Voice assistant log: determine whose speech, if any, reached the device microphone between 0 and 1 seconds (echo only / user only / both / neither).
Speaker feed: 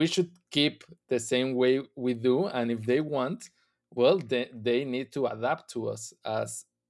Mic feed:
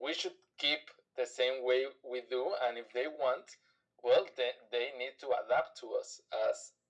echo only